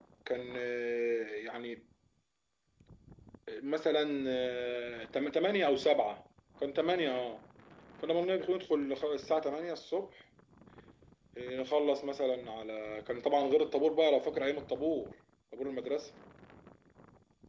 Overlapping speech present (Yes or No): No